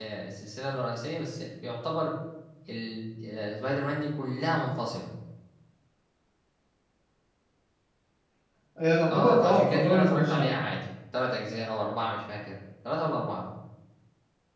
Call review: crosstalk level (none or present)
present